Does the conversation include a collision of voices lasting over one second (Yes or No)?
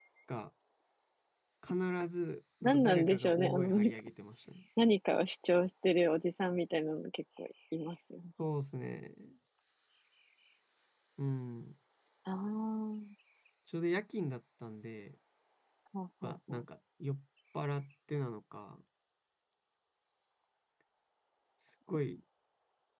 Yes